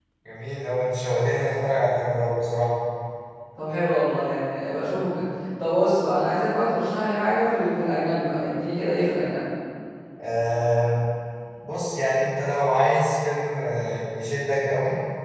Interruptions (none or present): none